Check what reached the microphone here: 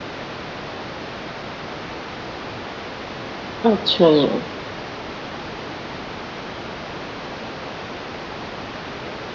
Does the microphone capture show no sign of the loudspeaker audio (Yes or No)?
Yes